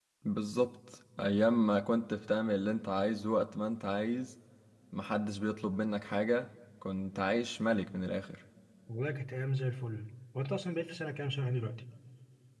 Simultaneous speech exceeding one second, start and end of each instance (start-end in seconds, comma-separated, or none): none